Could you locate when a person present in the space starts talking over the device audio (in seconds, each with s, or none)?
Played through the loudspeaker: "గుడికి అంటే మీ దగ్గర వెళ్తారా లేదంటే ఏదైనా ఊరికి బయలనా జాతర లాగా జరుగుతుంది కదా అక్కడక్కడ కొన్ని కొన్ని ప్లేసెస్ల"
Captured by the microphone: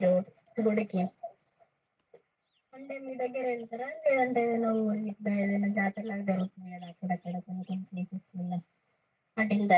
none